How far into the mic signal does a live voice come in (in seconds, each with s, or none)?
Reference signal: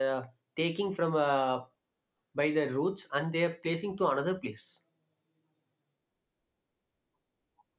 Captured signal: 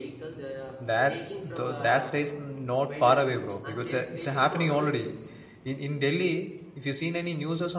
0.8 s